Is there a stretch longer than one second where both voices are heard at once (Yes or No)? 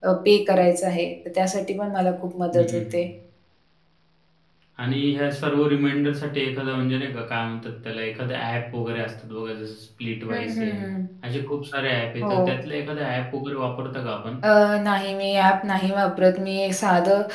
No